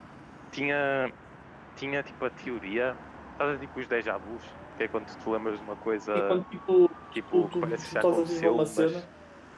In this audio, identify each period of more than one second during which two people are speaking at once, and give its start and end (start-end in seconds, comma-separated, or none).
7.3-9.0